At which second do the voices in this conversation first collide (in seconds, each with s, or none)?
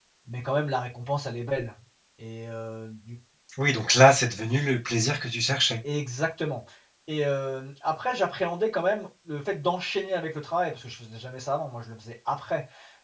none